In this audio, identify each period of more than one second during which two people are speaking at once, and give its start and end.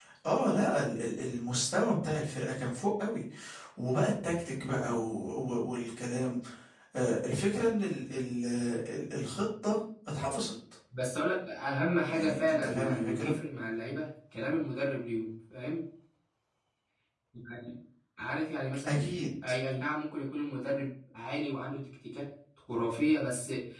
12.1-13.3

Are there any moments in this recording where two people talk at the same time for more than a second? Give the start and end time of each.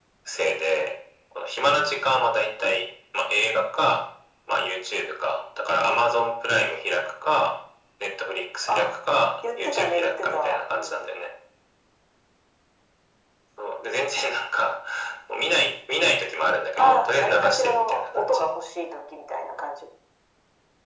9.6-11.1, 16.8-18.4

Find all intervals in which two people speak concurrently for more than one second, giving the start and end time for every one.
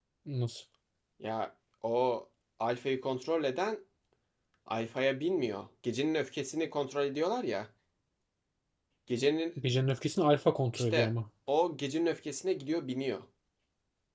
none

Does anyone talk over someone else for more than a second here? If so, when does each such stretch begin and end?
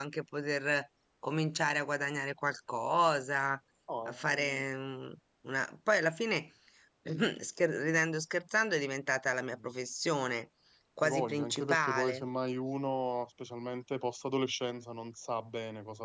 11.0-12.2

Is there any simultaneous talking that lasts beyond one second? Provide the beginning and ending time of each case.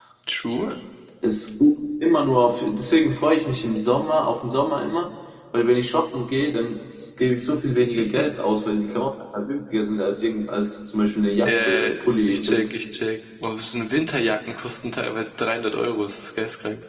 11.4-12.7

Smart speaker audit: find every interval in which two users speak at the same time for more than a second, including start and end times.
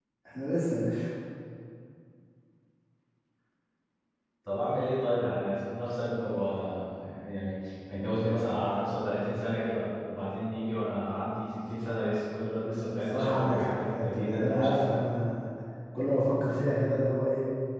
13.1-15.0

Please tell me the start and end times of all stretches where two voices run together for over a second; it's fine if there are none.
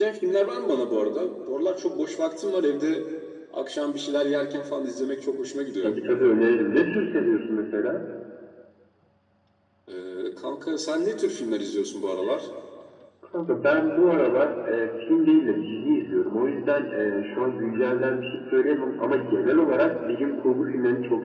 none

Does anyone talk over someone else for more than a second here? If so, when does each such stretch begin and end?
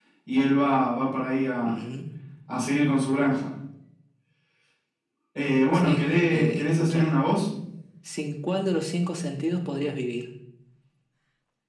5.7-7.1

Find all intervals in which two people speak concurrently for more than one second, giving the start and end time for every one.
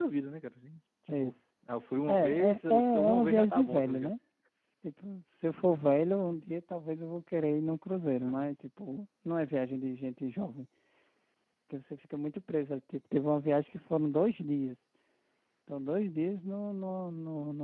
2.1-4.1

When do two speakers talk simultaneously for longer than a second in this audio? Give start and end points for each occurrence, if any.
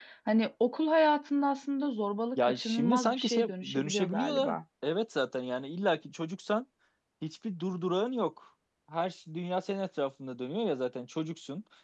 2.4-4.6

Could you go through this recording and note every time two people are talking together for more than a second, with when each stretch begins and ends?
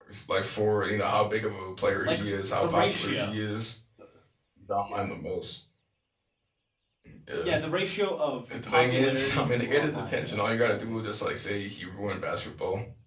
2.0-3.3, 8.7-11.0

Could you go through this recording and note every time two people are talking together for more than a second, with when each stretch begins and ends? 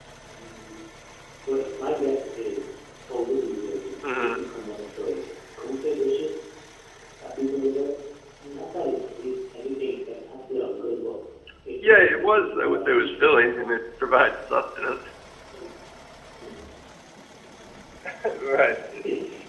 11.8-13.1

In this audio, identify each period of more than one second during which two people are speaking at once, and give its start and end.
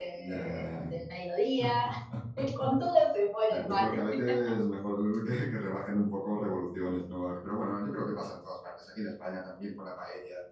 none

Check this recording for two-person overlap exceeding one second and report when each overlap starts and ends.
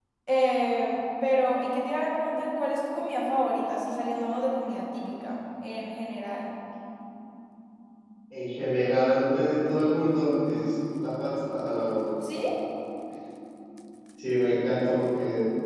none

